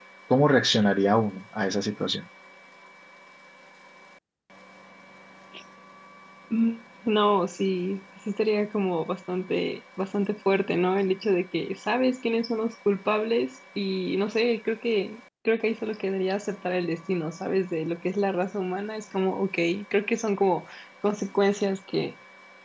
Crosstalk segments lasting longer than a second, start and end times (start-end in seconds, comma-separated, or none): none